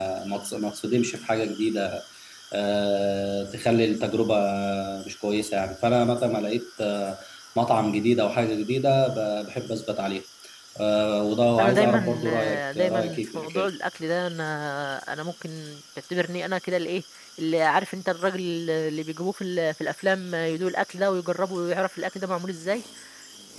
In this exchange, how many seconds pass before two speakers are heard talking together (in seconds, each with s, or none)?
11.6 s